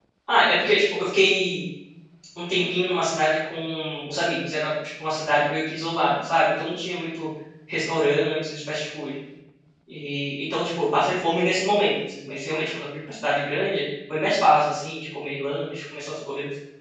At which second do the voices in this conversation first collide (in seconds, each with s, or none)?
none